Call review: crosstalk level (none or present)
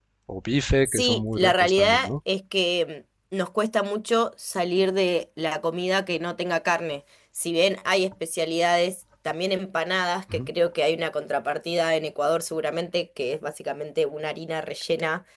present